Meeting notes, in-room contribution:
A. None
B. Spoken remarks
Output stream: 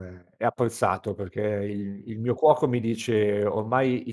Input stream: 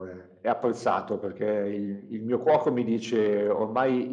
A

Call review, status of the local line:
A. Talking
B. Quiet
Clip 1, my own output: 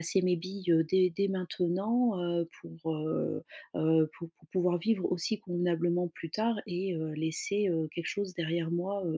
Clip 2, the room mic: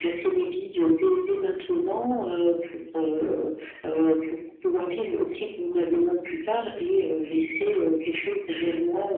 B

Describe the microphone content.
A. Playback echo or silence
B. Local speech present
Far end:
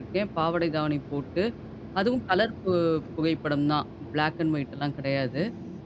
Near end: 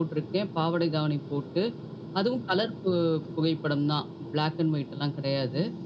A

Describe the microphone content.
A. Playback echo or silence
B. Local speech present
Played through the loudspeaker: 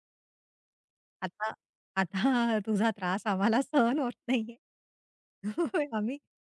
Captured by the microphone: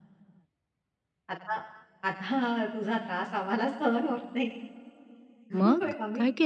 B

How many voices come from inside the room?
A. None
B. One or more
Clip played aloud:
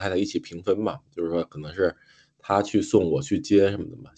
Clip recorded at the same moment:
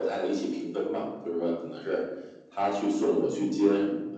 A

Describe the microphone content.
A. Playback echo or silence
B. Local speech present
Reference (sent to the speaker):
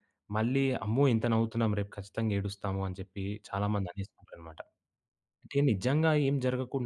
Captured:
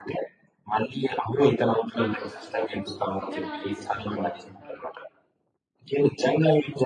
B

